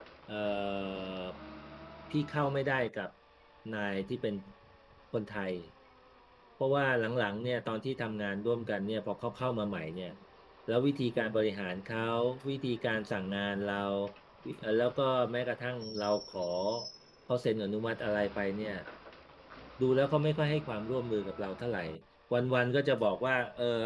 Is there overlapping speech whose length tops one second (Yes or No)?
No